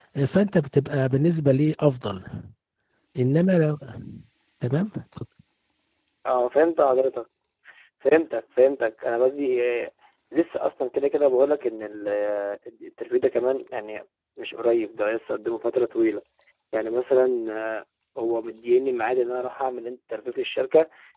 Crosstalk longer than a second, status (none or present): none